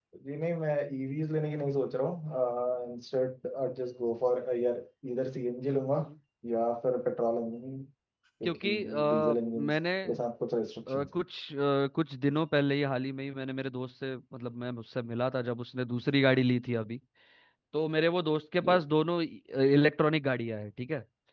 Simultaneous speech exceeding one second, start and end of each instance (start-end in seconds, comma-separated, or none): 8.4-9.7